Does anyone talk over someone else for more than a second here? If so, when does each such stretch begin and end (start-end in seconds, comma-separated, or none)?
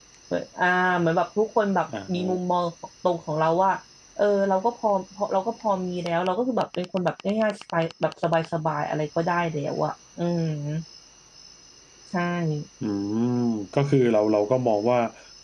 none